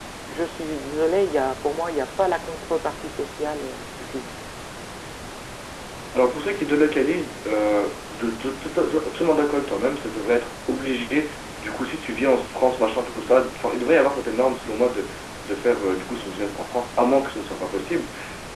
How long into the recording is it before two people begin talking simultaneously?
none

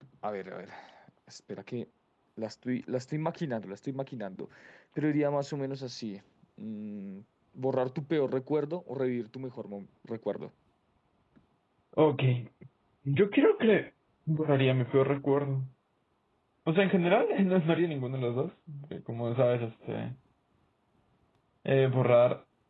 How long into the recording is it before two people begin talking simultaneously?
none

